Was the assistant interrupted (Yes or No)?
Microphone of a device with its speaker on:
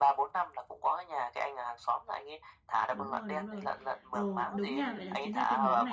Yes